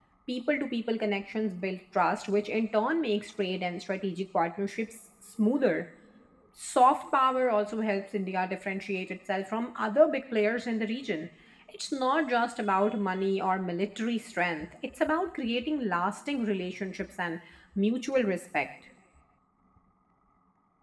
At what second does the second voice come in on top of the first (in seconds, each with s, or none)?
none